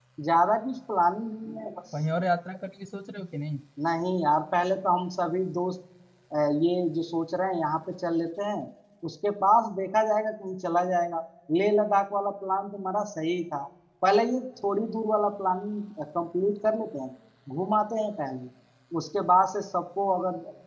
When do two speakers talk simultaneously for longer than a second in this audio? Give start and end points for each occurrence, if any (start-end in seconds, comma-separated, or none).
none